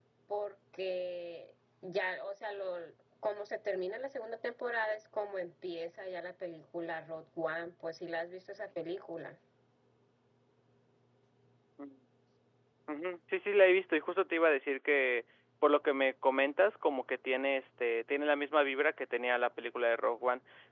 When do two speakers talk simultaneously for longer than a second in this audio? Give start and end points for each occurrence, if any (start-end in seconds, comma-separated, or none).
none